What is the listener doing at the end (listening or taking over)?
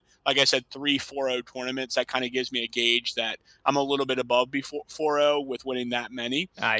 listening